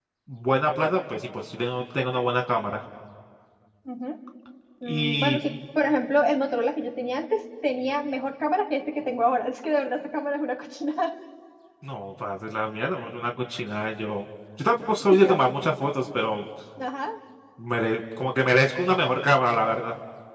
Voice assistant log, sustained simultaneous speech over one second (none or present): none